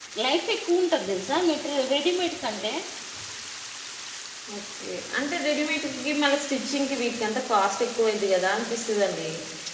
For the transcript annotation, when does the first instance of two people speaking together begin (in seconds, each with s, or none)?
none